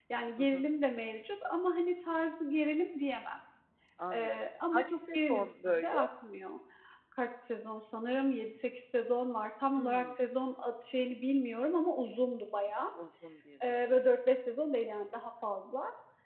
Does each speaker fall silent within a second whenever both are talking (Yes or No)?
No